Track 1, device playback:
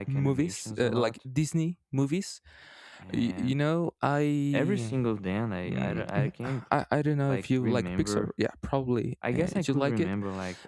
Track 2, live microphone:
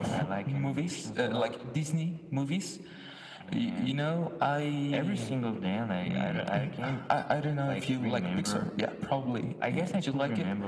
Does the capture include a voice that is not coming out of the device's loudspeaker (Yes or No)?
No